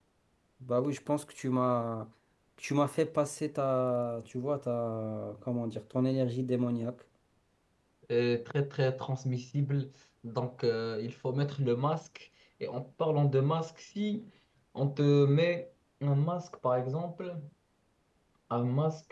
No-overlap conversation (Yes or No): Yes